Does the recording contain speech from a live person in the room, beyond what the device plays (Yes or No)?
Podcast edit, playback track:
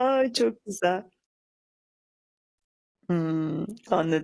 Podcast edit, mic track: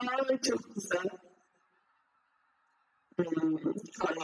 No